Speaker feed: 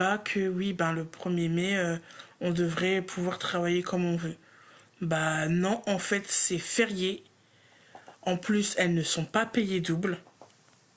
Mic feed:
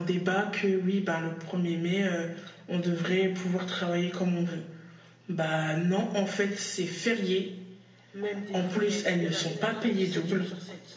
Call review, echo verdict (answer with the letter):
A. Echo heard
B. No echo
A